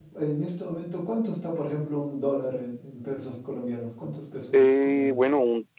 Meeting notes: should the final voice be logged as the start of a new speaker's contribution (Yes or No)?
Yes